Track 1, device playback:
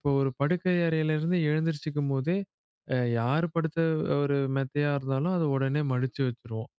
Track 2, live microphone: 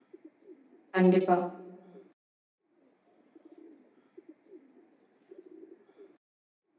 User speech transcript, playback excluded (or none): கண்டிப்பா.